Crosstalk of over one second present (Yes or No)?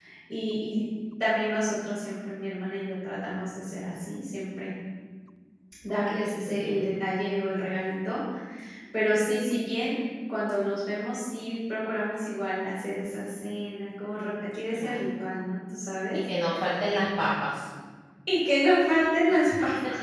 No